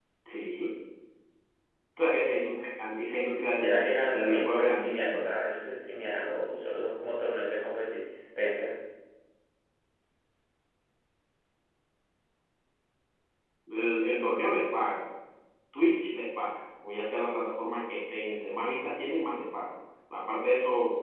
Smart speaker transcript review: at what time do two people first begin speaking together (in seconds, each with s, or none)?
3.5 s